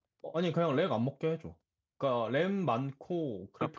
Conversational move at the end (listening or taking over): taking over